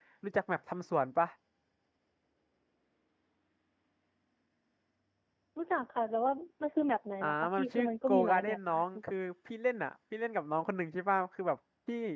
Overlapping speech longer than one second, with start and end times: 7.2-8.8

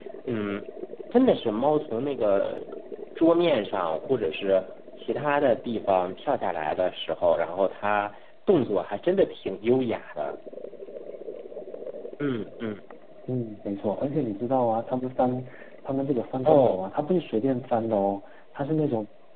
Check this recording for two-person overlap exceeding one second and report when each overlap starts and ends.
none

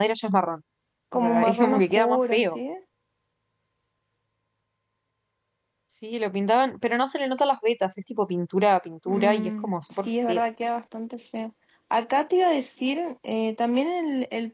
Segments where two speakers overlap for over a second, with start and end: 1.1-2.6, 9.1-10.4

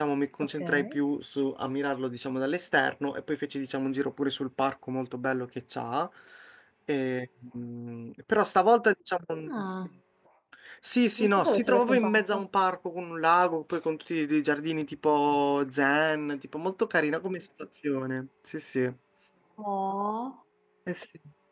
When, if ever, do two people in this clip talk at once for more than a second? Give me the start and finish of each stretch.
11.2-12.5

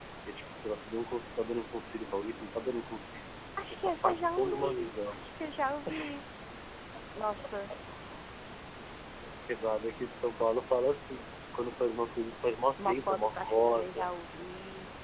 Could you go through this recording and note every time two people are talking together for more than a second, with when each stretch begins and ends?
3.8-5.2, 12.8-14.1

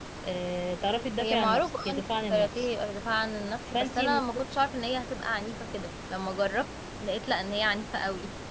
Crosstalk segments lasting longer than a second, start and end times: 1.2-2.7

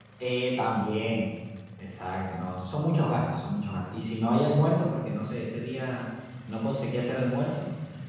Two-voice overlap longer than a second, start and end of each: none

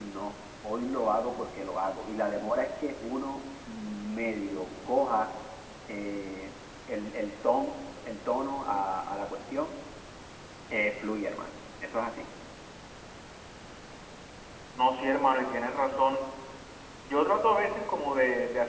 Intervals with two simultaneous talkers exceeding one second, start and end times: none

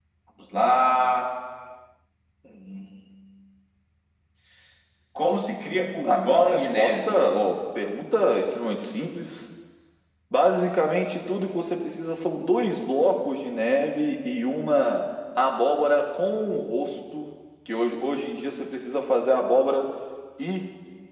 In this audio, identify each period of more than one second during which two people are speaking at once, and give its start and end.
6.1-7.3

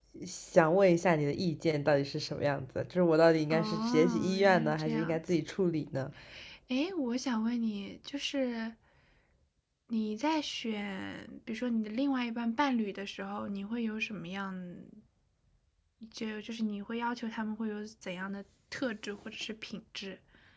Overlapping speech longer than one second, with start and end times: 3.5-5.2

